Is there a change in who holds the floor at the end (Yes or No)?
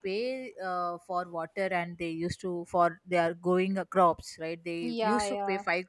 No